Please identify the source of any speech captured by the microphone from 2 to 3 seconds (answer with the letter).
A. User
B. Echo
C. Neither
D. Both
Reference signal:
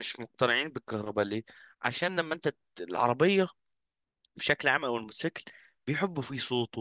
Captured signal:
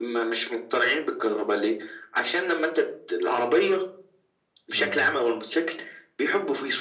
B